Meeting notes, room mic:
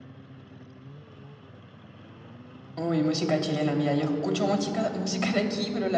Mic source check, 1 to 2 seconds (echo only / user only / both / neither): neither